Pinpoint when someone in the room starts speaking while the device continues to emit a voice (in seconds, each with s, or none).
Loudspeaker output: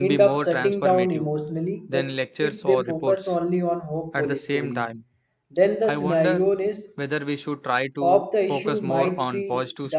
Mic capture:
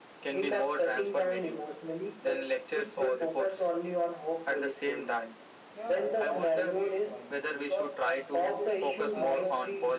5.7 s